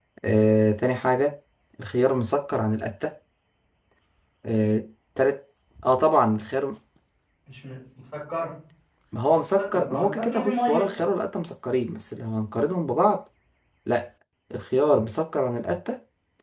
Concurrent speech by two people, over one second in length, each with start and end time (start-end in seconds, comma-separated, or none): 9.6-11.0